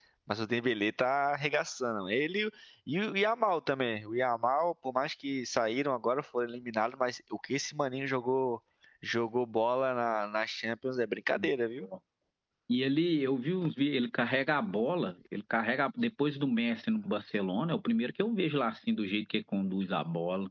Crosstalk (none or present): none